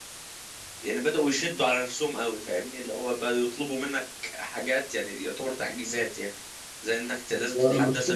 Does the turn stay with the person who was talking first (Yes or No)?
Yes